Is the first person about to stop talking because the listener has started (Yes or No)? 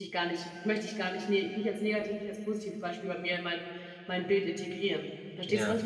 Yes